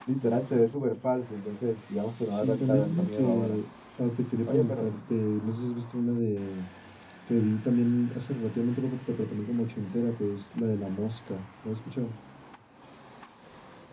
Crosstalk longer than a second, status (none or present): present